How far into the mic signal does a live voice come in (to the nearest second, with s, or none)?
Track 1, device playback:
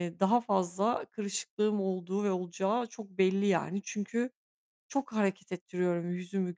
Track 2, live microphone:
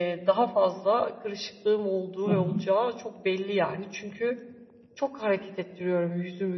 2 s